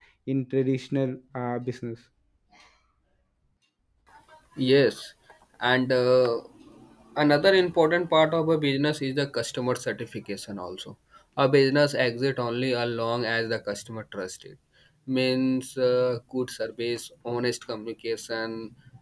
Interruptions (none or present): none